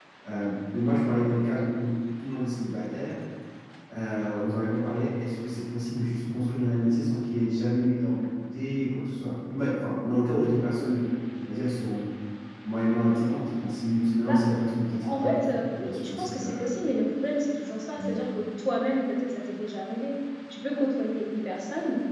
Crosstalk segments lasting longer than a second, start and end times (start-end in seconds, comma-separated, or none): 15.0-16.7